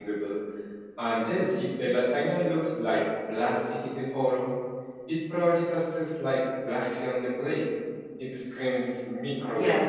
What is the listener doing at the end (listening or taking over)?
taking over